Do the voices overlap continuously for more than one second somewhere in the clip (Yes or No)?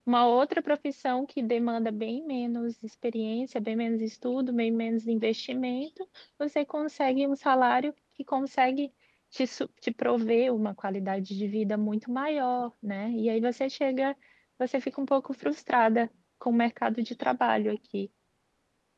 No